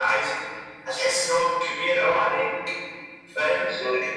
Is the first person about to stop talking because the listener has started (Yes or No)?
No